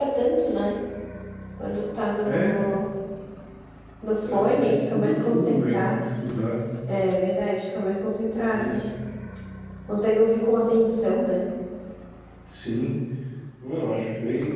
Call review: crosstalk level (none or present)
present